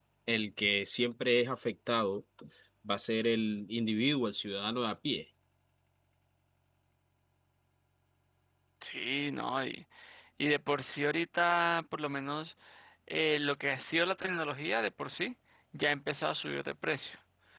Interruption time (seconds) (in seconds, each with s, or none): none